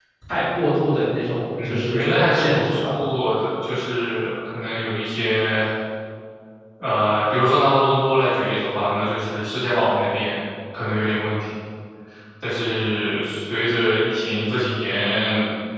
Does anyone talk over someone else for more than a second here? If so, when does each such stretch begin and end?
1.6-3.0

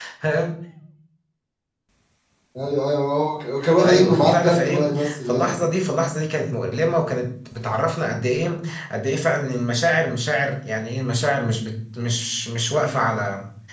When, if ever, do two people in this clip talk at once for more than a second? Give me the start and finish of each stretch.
3.8-5.6

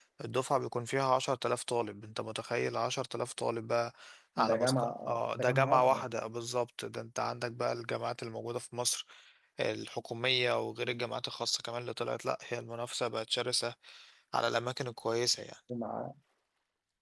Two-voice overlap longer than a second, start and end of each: 4.4-6.0

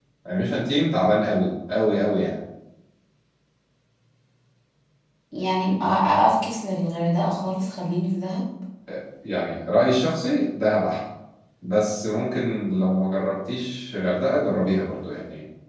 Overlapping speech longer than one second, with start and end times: none

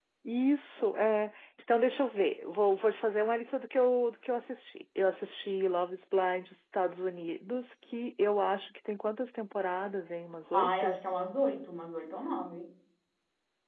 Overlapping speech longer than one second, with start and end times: none

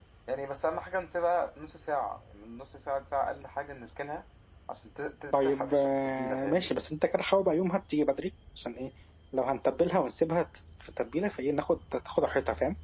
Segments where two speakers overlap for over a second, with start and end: 5.3-6.7

